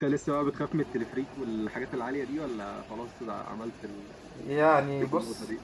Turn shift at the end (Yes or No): Yes